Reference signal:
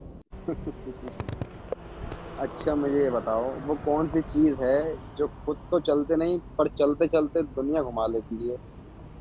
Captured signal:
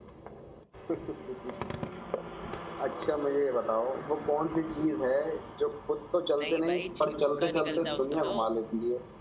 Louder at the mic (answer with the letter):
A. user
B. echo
B